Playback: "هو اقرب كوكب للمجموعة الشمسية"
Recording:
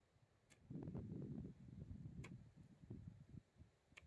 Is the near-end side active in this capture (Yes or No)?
No